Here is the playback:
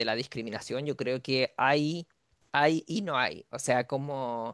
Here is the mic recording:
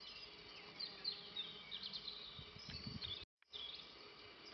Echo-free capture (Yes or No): Yes